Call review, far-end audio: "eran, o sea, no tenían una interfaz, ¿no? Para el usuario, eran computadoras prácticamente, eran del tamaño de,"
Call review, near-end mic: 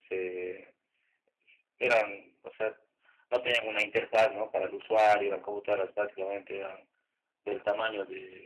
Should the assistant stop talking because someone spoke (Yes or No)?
No